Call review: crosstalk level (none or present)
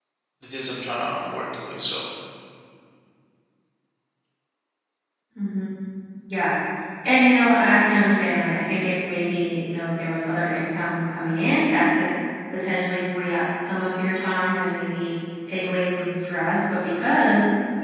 none